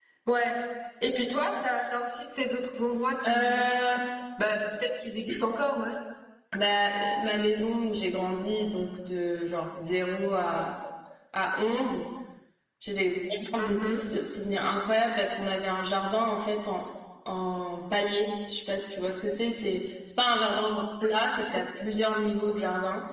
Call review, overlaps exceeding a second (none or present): none